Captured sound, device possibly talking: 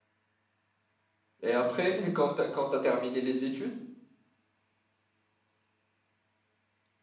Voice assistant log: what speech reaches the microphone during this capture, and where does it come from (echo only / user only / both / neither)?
user only